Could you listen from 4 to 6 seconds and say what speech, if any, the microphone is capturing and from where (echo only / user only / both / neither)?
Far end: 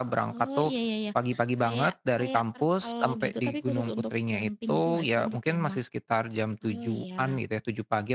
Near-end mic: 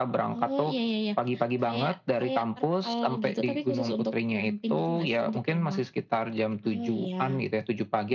echo only